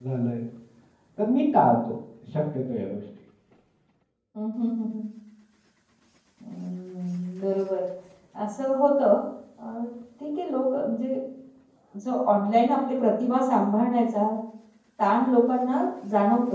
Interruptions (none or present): none